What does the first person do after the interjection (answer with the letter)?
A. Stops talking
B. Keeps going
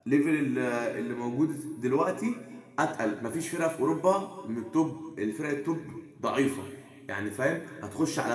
B